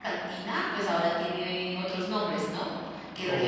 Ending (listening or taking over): listening